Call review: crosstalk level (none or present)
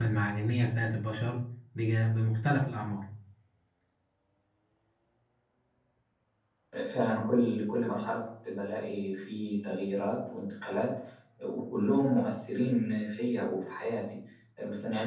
none